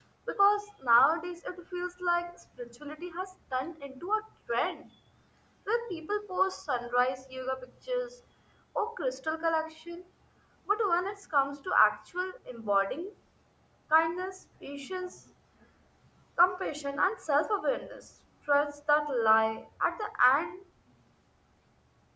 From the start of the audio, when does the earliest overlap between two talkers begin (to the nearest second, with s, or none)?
none